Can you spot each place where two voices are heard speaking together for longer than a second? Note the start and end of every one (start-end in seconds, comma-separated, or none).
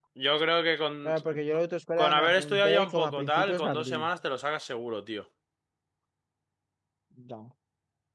2.0-4.0